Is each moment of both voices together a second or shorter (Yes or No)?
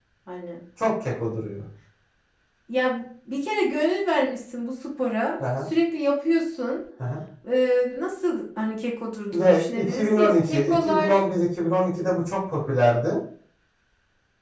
No